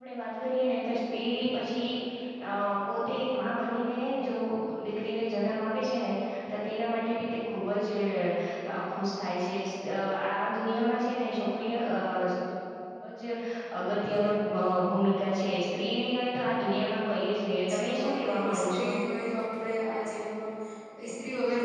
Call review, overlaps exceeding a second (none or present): present